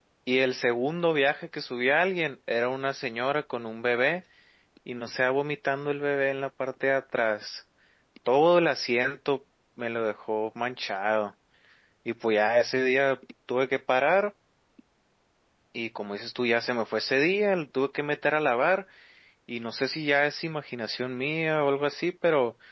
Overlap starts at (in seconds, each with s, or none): none